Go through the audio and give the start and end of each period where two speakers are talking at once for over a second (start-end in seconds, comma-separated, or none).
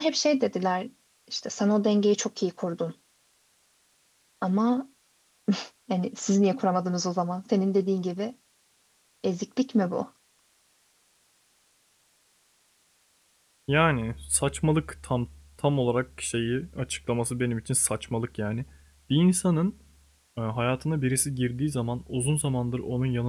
none